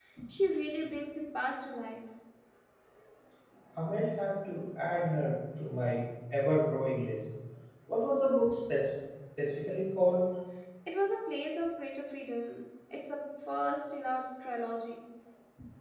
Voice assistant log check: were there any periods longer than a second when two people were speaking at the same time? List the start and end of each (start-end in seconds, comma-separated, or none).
none